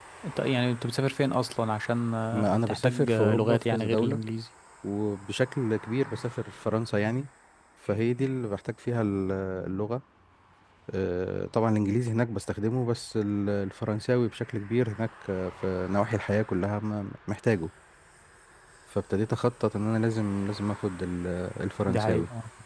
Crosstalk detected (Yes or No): Yes